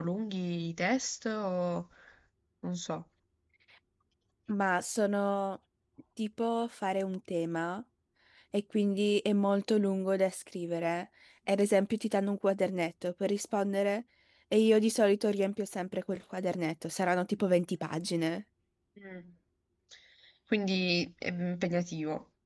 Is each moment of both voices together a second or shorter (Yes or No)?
Yes